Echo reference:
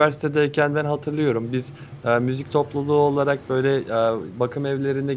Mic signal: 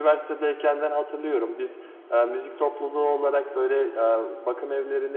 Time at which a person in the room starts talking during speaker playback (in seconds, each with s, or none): none